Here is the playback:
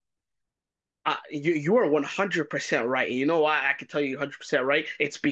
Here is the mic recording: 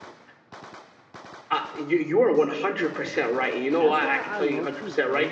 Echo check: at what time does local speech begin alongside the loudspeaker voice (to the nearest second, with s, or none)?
4 s